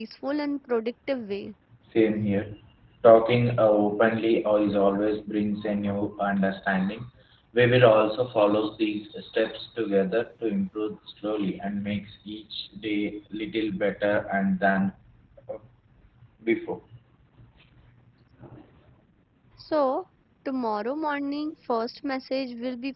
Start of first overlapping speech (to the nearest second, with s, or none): none